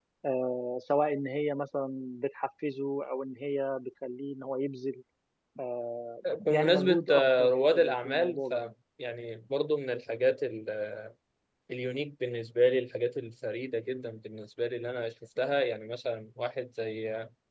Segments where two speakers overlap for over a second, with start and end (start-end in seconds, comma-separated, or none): 6.5-8.5